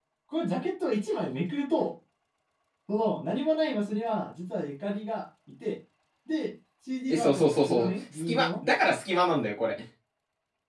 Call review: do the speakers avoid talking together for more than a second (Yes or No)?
No